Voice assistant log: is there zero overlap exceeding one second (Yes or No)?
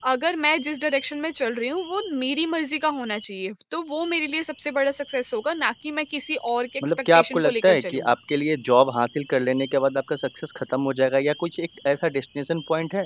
No